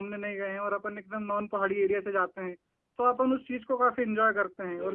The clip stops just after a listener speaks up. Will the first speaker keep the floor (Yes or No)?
Yes